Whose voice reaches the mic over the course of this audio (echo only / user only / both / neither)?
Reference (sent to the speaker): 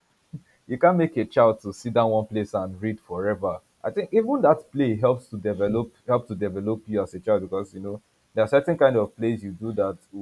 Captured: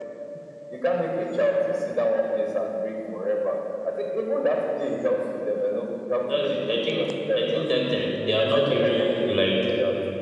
both